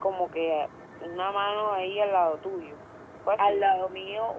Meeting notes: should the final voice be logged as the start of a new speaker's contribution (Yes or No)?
Yes